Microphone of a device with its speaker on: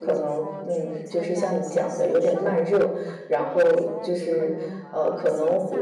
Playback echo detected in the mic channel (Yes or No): Yes